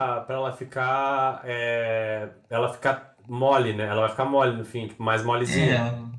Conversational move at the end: taking over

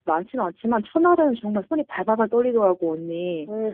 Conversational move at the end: taking over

